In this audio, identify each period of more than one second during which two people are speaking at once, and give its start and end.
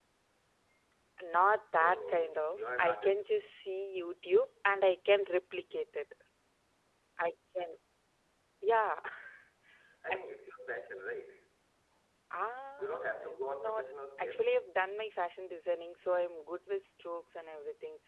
1.8-3.2, 12.8-14.4

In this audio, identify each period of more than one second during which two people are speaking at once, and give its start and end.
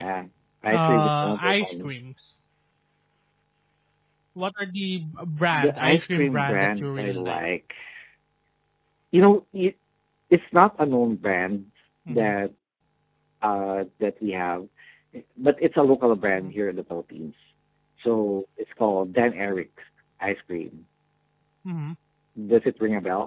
0.7-1.9, 5.5-7.4

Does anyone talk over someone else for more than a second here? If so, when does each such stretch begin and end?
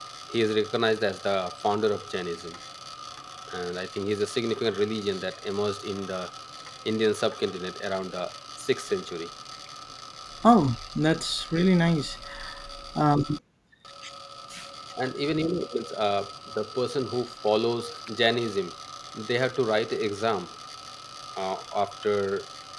none

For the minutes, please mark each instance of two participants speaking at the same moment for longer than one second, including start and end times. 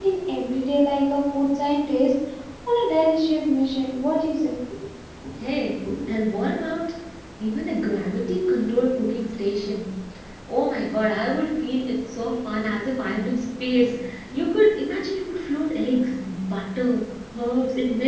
none

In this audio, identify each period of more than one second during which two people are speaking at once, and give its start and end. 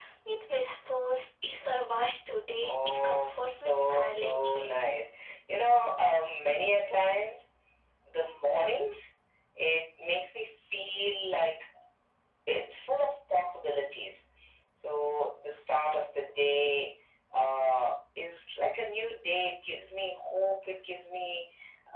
2.6-4.9

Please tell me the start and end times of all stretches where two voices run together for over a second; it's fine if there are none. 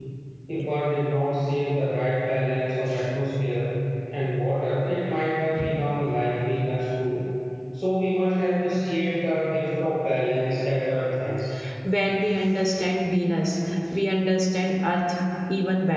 none

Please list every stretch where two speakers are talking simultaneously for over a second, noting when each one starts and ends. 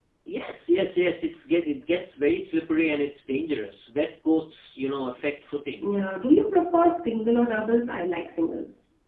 none

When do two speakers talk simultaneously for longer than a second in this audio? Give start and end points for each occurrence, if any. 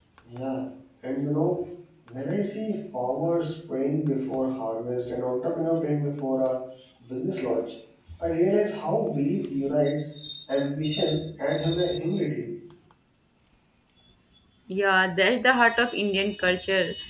none

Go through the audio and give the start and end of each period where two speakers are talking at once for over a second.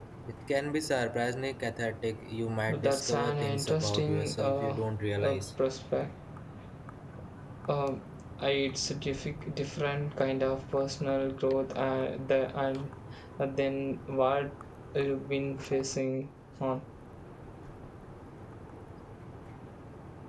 2.7-4.8

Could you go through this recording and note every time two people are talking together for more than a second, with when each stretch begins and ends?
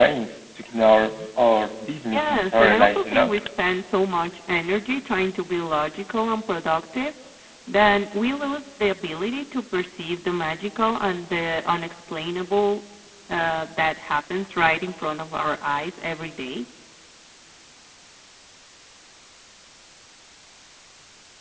2.1-3.3

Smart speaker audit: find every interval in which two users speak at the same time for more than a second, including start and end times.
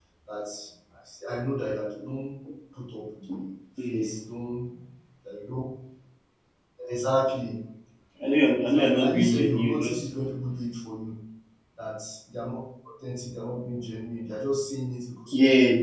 8.6-10.0

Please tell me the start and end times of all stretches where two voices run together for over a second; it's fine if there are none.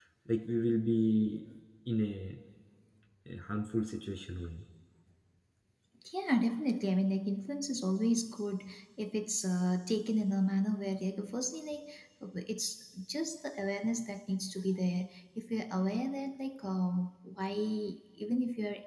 none

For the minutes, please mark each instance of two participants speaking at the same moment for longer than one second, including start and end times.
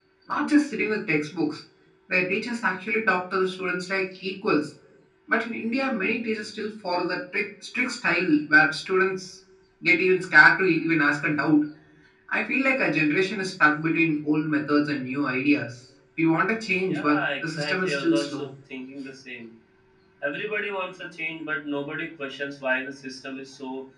16.9-18.5

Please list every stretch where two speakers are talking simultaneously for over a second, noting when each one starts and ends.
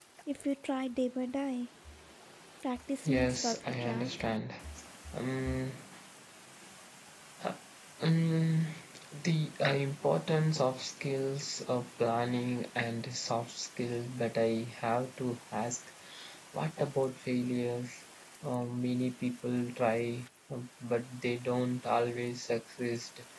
3.0-4.3

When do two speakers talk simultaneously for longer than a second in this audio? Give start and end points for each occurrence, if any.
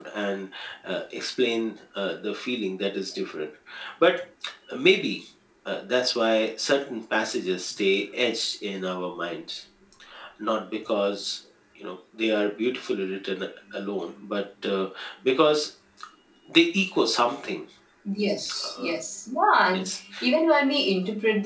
none

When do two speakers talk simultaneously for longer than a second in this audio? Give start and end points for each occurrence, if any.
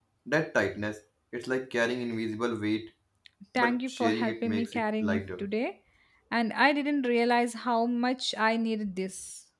3.6-5.5

